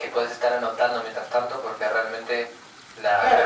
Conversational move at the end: taking over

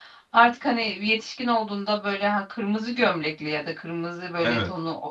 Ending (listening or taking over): listening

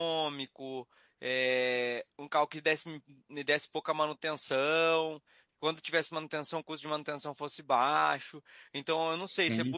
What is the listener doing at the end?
listening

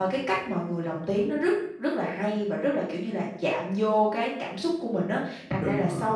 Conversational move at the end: listening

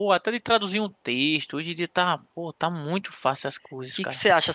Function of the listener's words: taking over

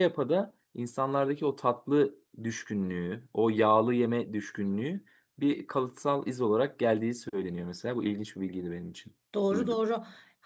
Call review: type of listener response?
taking over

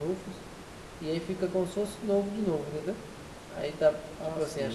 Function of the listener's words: listening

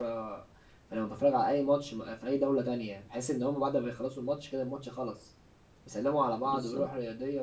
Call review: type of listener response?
listening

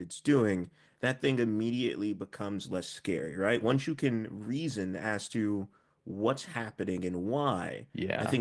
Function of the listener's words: listening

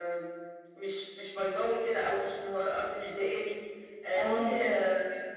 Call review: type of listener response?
listening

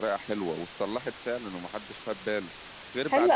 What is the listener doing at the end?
taking over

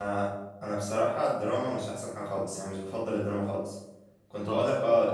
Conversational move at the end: listening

